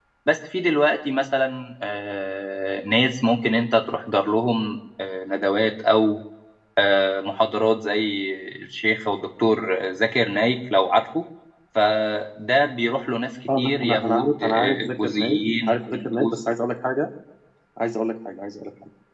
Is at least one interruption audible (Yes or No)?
Yes